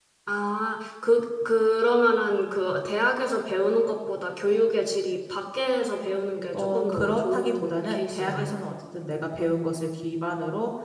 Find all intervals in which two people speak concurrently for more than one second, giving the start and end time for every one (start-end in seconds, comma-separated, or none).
6.5-8.6